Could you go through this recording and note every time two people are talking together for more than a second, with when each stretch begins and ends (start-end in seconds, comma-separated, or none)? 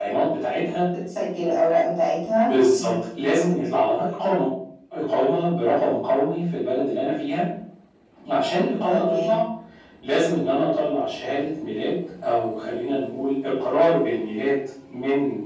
none